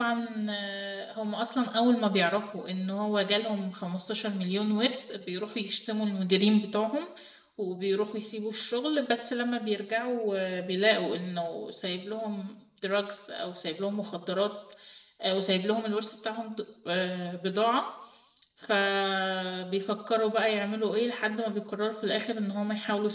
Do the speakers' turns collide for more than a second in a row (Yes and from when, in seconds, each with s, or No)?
No